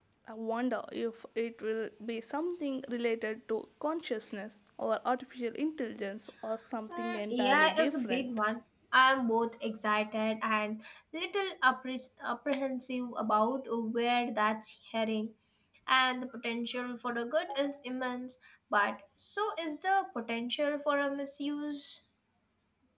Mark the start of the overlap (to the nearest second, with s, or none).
7 s